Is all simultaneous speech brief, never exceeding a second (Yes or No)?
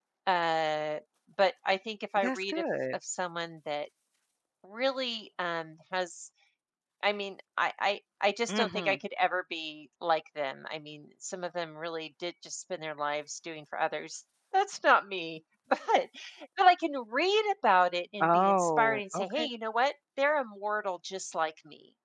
No